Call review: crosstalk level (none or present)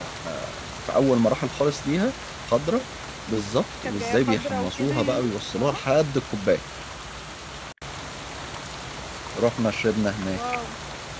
present